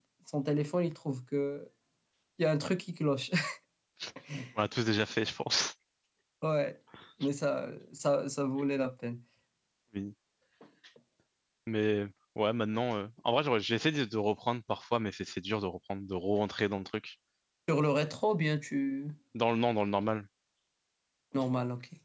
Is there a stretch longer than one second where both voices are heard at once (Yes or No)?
No